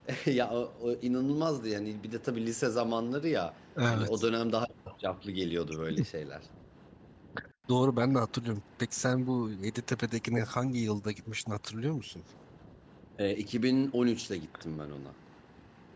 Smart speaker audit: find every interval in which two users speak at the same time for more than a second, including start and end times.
none

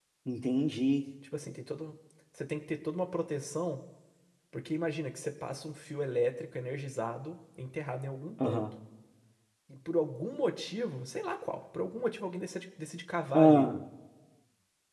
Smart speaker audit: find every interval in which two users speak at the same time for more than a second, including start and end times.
none

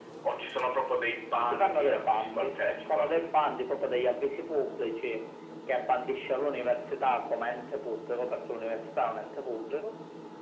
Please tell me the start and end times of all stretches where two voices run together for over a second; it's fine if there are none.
1.5-3.1

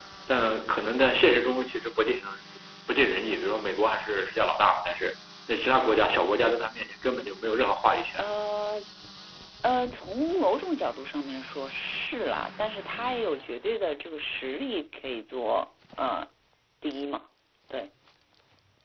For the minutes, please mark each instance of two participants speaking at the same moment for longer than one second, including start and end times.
none

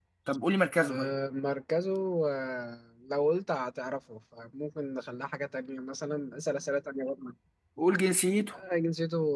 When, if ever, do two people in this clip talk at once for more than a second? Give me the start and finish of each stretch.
none

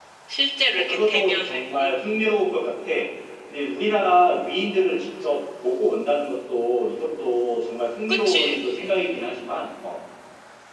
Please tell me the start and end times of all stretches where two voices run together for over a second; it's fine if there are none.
0.7-2.0

